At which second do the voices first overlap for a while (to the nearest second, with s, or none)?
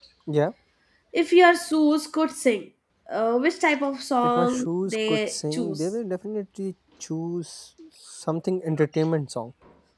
4 s